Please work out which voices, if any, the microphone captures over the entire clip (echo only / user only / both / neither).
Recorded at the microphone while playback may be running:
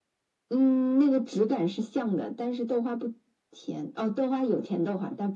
echo only